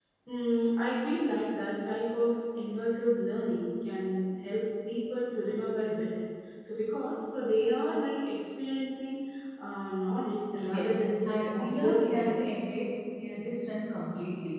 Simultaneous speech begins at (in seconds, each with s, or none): 10.6 s